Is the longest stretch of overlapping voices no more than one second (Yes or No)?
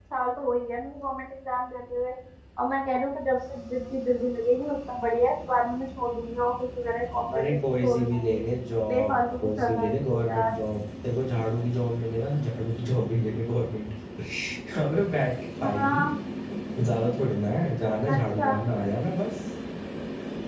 No